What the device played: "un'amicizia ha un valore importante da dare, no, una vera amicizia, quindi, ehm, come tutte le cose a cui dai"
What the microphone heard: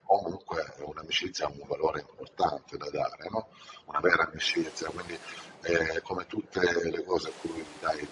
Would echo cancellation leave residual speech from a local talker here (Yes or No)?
No